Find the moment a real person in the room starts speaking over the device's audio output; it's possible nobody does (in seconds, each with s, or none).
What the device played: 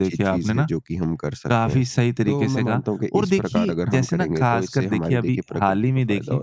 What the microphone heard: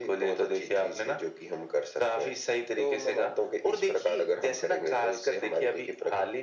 none